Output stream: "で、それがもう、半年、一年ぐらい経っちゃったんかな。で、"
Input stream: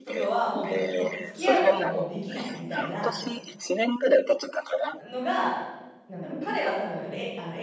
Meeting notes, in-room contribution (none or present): present